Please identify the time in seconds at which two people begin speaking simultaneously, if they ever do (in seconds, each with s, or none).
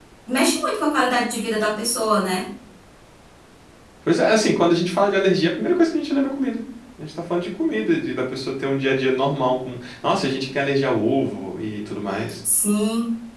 none